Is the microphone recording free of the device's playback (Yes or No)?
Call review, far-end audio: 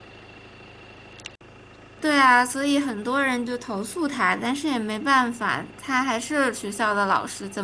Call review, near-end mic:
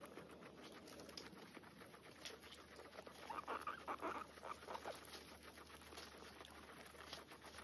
Yes